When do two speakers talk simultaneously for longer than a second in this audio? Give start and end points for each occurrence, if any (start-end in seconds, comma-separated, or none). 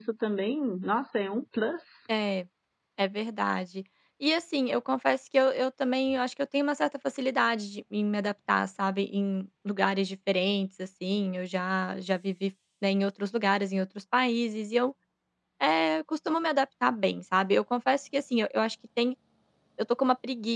none